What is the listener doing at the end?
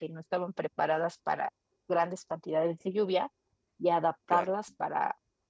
listening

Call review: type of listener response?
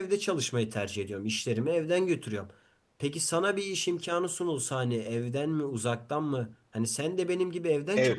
taking over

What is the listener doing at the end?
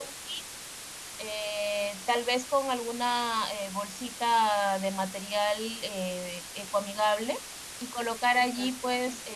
listening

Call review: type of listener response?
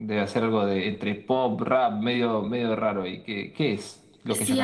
taking over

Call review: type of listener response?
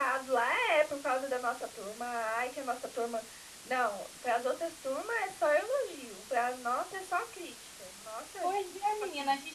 taking over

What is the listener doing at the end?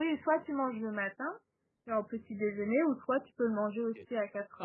taking over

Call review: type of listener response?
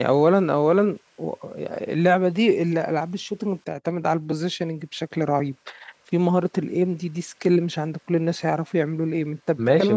taking over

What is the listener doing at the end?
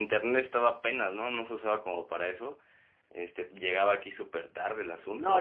taking over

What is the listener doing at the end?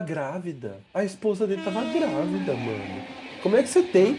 listening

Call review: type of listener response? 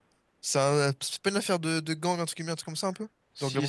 taking over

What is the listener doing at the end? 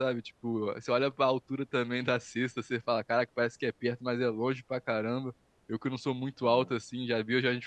listening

